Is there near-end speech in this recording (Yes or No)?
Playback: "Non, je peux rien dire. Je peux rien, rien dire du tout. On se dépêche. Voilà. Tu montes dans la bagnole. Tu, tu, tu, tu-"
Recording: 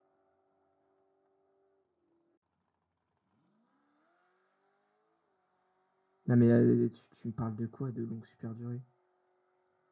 Yes